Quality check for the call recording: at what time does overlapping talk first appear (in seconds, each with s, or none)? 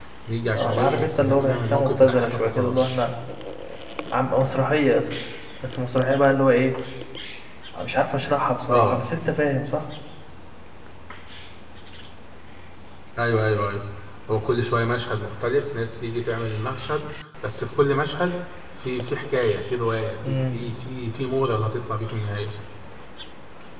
0.5 s